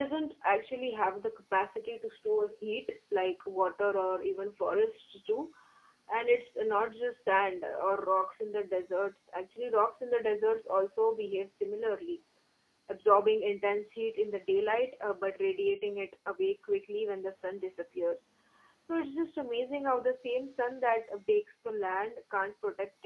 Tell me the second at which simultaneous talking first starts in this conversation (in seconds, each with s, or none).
none